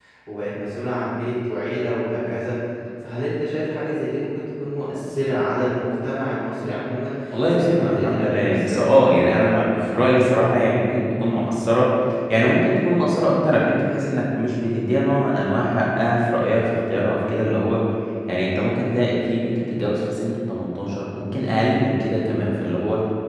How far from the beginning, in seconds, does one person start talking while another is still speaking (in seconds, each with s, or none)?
7.3 s